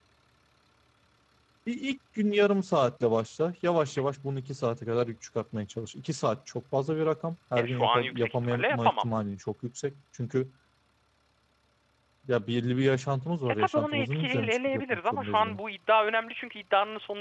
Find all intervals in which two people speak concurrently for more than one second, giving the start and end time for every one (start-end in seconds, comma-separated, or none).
7.6-9.0, 13.5-15.6